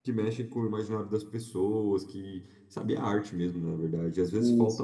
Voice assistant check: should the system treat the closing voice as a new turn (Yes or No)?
No